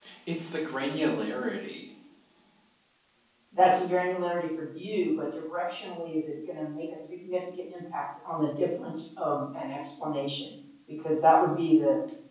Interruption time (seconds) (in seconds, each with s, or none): none